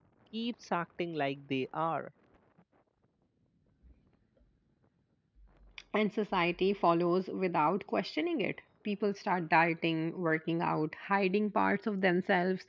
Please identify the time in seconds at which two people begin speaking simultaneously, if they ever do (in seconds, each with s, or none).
none